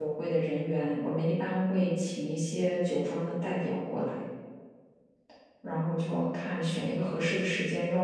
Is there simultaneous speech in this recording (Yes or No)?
No